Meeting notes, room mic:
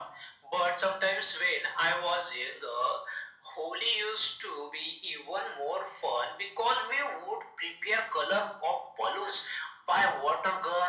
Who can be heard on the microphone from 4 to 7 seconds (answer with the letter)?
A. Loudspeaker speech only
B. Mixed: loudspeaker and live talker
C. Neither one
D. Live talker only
A